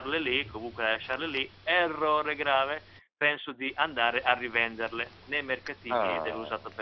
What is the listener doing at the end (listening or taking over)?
listening